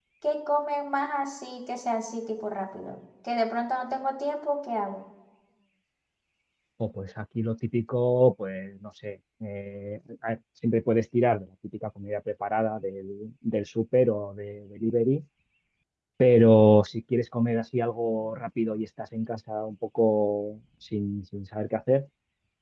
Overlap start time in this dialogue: none

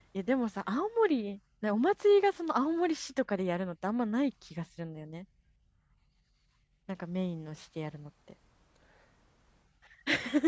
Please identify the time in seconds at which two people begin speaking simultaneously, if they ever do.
none

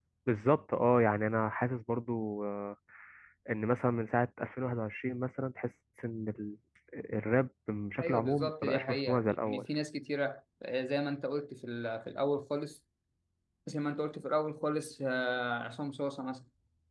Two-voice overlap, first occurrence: 8.0 s

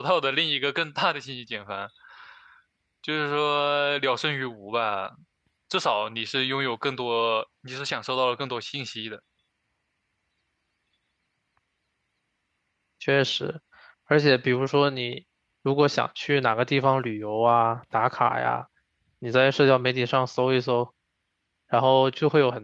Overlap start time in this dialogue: none

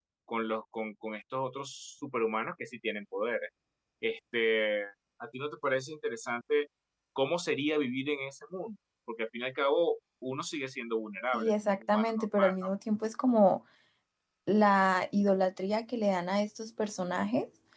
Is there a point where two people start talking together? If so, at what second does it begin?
11.3 s

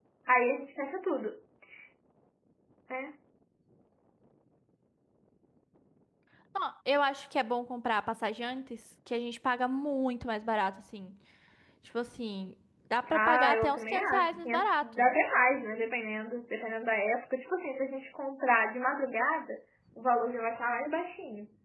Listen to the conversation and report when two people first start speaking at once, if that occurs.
13.1 s

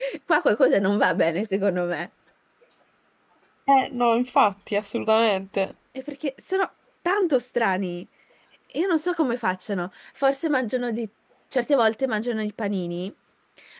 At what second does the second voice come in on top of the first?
none

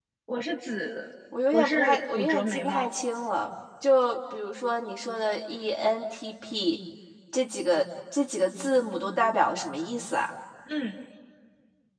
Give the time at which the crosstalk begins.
1.3 s

